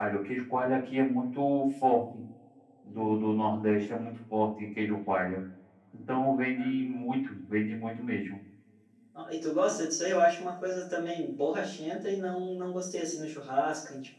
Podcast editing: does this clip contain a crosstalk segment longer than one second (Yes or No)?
No